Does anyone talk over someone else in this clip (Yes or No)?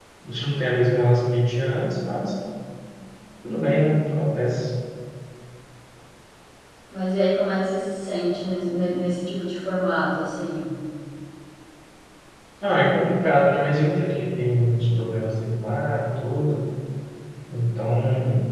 No